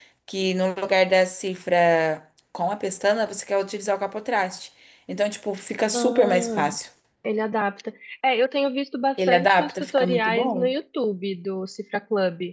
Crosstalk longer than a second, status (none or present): present